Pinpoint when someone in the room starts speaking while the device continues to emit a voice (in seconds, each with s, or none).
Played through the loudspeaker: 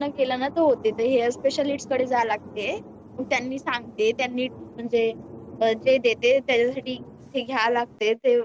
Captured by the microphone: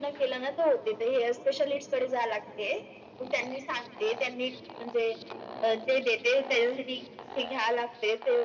none